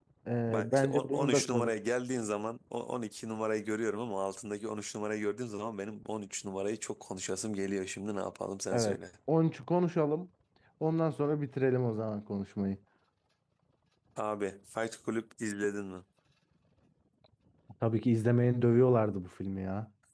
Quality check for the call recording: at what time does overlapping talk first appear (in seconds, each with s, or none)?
0.5 s